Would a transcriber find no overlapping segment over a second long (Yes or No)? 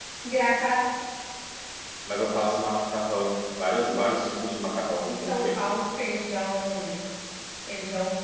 Yes